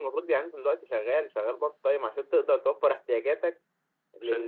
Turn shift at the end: No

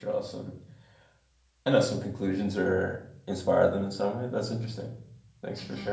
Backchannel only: No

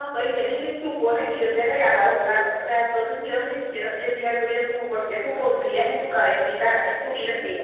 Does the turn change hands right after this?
Yes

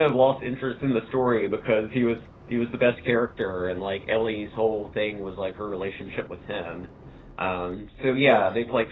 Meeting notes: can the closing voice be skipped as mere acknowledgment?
Yes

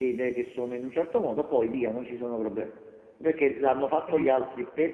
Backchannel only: Yes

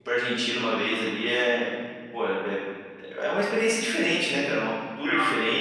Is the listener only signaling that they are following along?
Yes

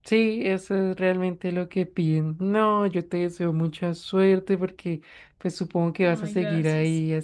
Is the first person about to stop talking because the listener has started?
No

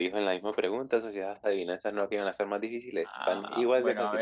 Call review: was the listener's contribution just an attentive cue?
No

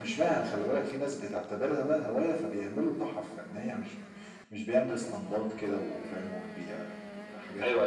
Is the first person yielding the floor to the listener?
Yes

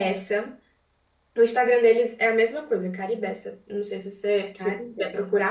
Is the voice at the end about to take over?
No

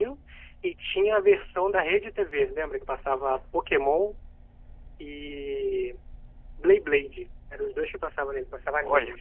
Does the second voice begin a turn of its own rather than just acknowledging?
Yes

